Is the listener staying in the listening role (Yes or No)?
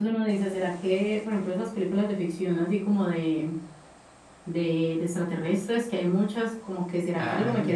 Yes